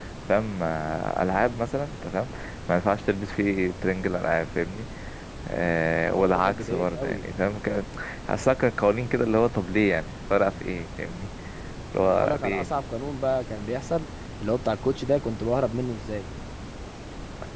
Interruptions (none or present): present